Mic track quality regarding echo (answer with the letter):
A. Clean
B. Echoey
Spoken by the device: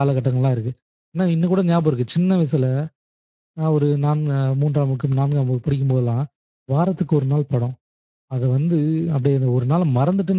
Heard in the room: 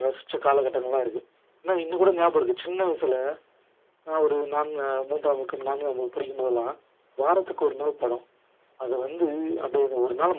B